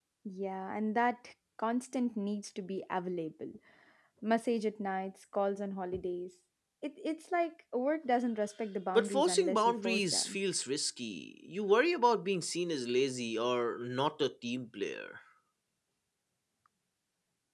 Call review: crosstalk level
present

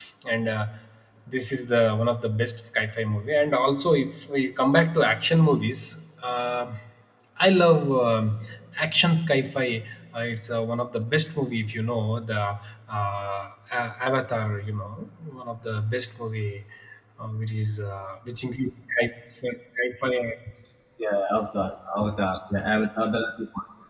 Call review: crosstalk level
none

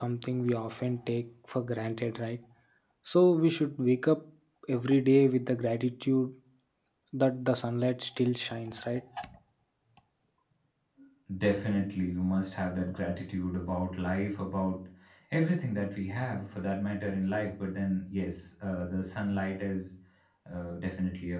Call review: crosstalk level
none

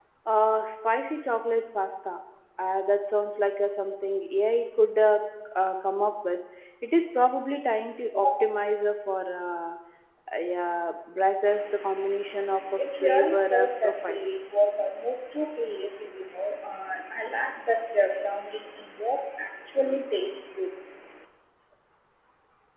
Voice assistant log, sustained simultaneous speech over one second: present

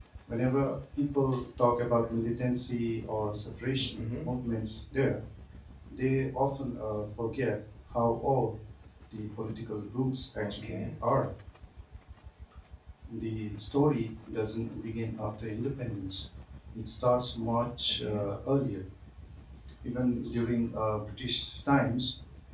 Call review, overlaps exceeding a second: none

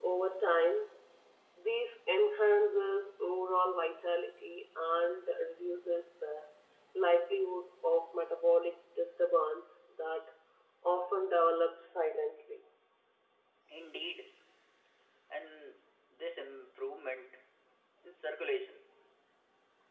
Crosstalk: none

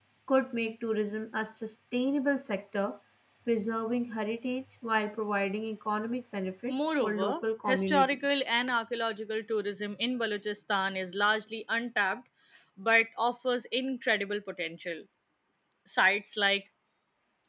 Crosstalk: present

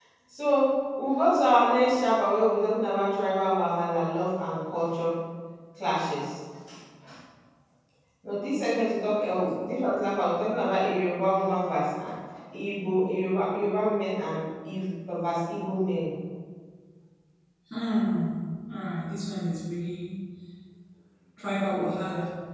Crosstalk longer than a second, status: none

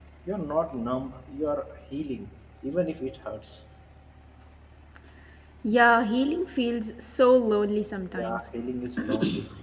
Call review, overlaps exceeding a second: none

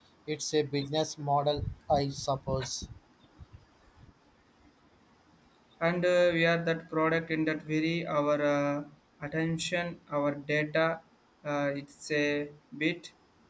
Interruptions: none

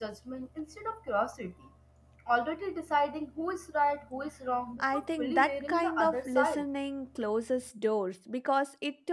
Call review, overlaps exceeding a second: present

